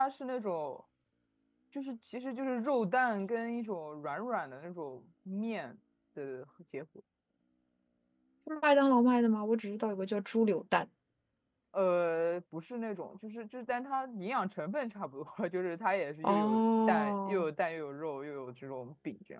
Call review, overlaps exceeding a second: present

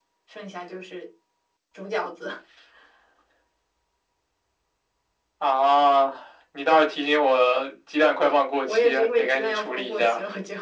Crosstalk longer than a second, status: present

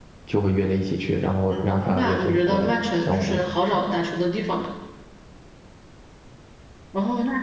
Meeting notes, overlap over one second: present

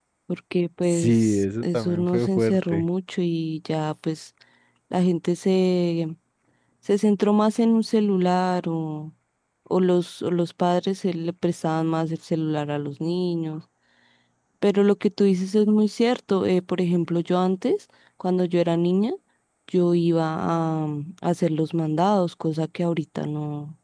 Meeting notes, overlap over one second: present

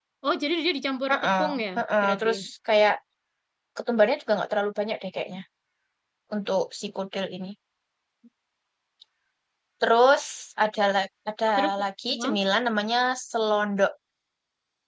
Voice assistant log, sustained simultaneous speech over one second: present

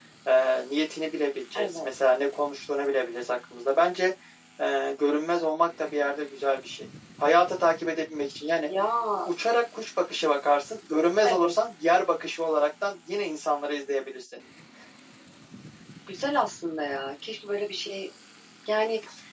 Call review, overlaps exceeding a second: none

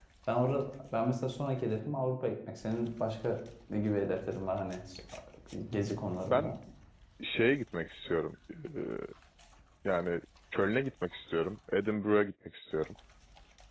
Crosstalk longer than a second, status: none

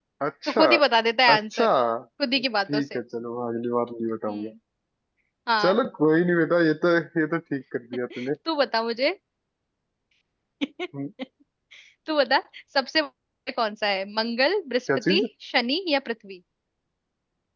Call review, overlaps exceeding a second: none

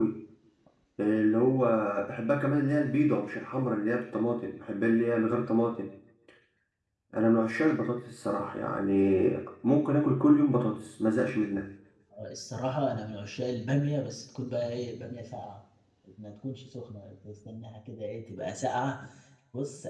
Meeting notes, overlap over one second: none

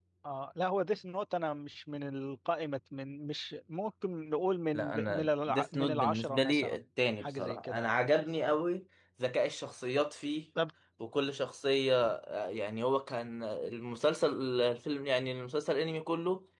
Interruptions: present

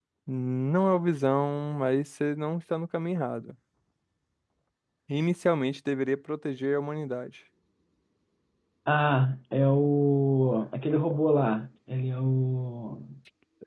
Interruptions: none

